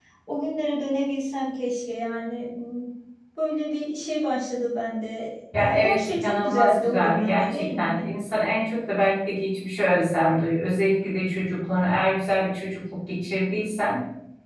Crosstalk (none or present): present